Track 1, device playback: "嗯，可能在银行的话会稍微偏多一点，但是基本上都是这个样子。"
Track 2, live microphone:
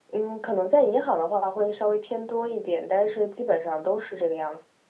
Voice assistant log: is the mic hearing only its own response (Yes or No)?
Yes